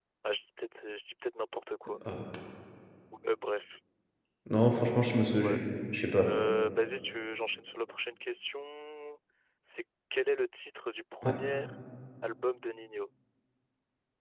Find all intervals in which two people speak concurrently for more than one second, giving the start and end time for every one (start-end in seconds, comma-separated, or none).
none